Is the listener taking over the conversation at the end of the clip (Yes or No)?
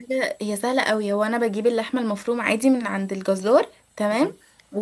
No